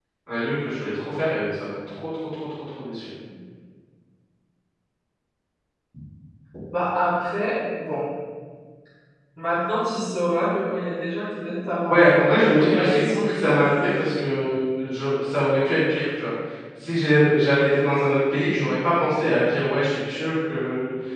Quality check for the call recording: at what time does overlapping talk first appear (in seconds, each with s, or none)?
11.9 s